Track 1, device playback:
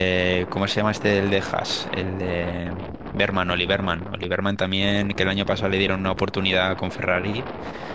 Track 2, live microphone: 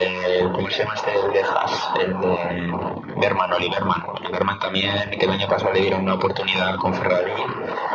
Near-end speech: none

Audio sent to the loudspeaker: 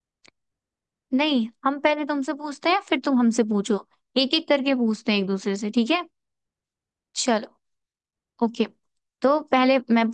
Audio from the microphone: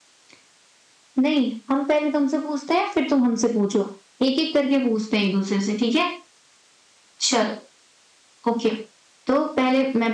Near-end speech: none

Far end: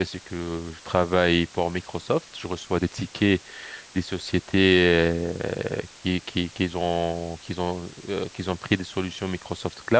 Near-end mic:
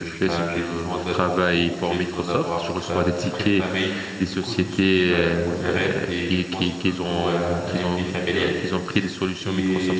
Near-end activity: present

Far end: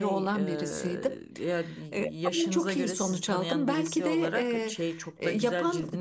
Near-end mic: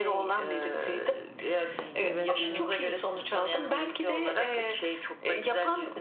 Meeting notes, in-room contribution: present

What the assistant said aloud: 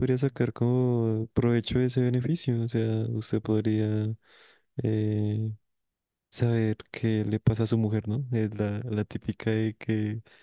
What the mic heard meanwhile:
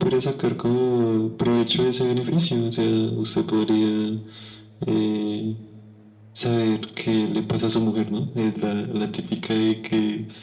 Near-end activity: none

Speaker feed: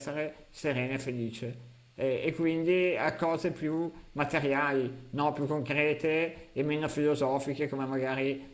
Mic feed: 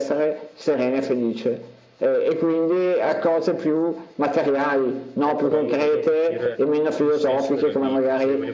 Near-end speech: present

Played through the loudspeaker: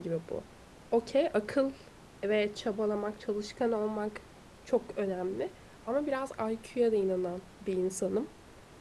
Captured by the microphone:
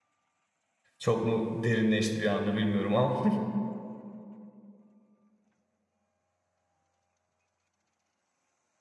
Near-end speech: present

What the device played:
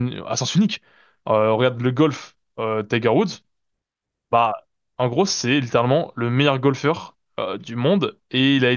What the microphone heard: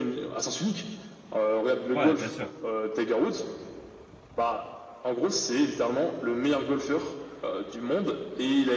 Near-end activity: present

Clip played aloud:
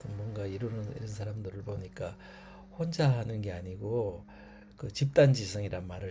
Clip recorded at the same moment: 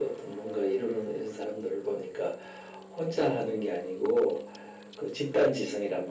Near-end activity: none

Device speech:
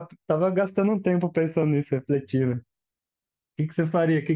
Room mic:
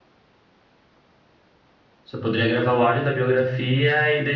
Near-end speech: present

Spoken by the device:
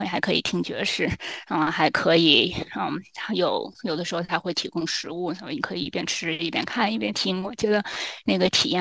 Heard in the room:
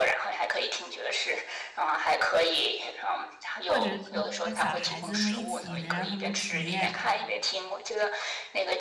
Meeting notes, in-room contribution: present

